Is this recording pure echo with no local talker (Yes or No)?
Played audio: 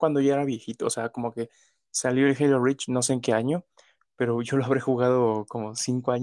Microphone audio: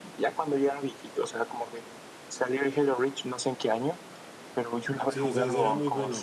No